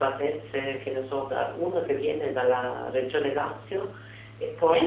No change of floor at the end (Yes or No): Yes